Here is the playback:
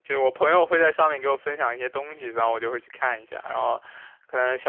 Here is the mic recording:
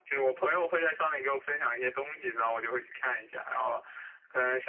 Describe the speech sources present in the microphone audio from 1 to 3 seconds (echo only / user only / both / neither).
echo only